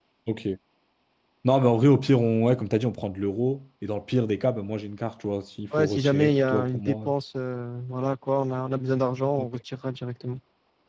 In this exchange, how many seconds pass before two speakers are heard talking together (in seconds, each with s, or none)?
5.8 s